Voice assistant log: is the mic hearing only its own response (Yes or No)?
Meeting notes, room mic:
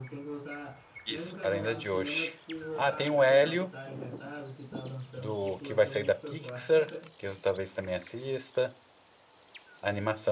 No